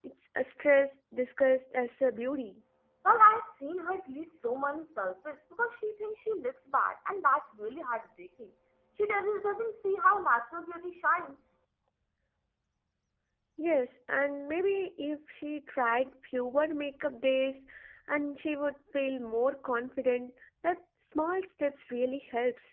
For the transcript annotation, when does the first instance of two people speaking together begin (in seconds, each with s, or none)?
none